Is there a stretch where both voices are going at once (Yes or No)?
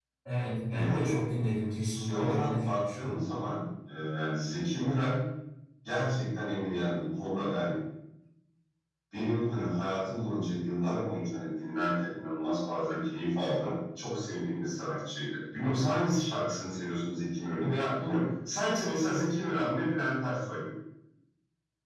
Yes